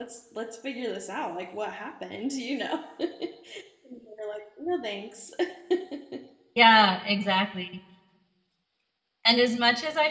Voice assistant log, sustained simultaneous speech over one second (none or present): none